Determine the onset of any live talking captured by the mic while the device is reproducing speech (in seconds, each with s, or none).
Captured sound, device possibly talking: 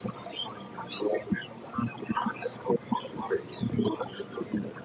none